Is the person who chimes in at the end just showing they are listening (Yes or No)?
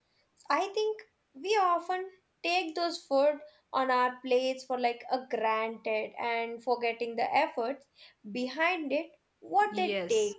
No